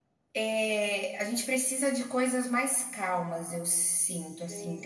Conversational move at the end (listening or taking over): taking over